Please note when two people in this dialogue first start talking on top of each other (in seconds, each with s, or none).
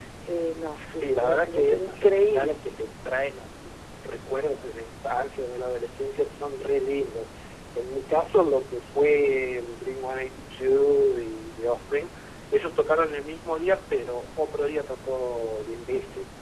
1.0 s